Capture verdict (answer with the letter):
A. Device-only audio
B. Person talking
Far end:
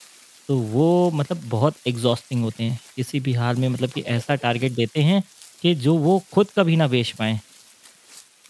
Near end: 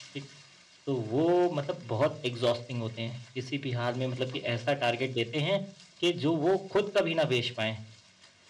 A